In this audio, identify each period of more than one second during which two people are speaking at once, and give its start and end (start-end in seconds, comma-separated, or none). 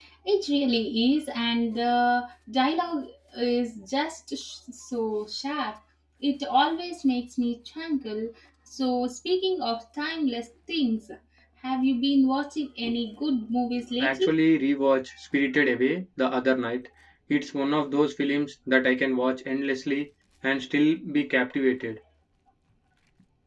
none